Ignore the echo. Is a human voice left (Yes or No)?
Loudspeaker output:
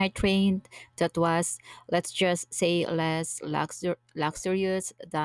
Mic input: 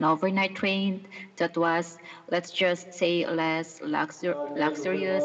Yes